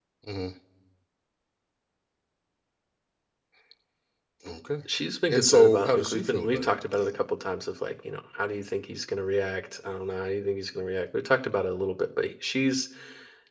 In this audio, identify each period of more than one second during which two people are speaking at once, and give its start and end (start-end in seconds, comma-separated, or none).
5.3-7.2